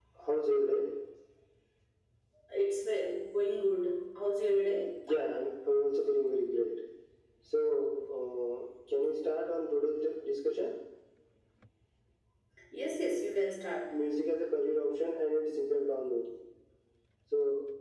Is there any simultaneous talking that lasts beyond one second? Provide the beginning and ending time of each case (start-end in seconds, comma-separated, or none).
none